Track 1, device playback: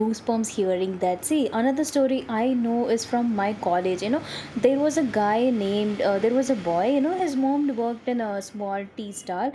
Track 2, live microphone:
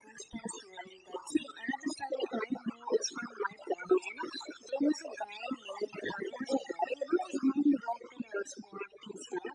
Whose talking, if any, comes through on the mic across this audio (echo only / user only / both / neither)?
echo only